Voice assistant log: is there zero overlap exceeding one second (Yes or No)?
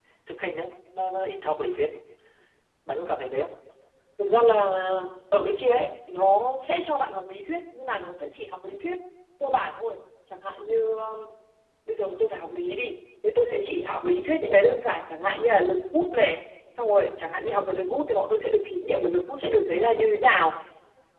Yes